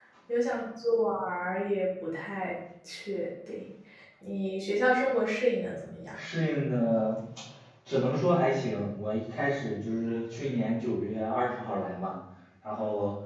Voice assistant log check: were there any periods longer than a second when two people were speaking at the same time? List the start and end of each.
none

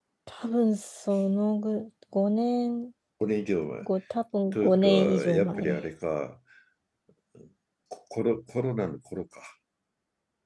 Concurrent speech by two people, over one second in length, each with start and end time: 4.5-5.8

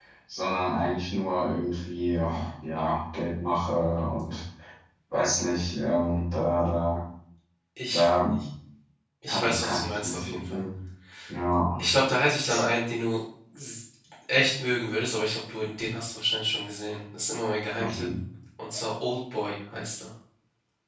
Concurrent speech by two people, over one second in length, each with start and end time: 9.3-10.6

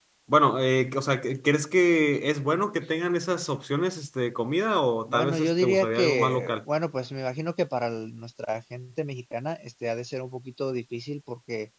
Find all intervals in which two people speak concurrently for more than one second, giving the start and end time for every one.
5.1-6.6

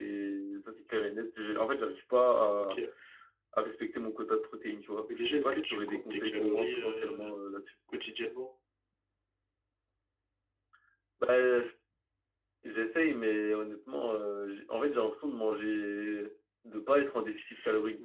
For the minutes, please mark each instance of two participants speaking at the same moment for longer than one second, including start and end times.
5.1-7.3

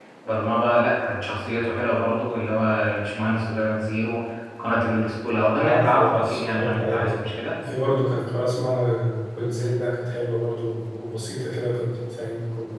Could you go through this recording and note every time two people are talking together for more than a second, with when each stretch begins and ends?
5.5-7.4

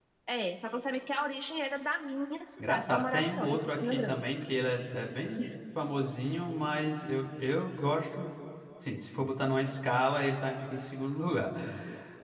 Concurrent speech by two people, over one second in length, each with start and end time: 2.6-4.2

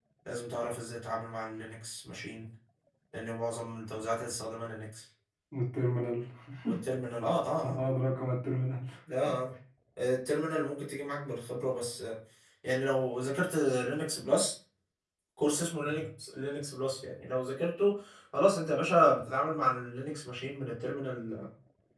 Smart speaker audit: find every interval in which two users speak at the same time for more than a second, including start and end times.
none

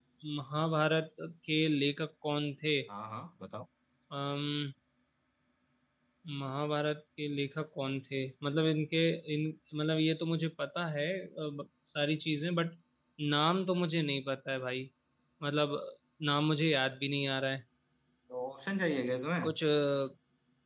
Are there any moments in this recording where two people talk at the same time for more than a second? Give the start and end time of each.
none

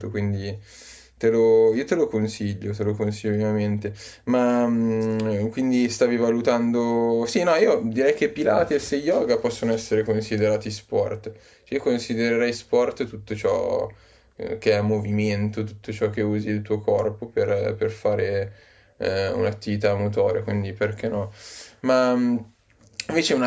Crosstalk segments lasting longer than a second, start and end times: none

